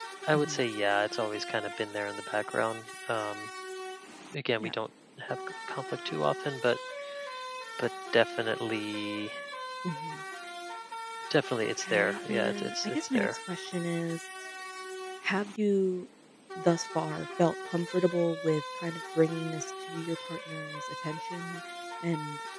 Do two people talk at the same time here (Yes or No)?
Yes